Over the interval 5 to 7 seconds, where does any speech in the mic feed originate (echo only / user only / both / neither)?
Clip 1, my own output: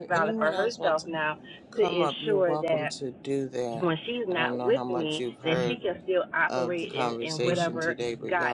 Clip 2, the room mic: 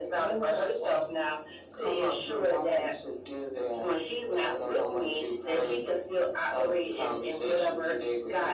echo only